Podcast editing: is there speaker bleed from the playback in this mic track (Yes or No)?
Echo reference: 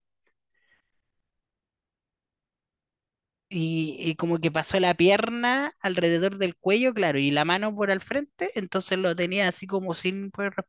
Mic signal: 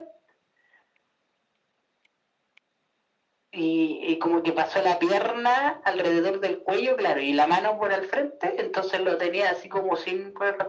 Yes